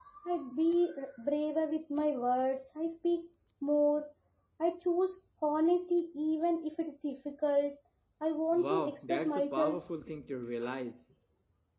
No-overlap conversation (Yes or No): No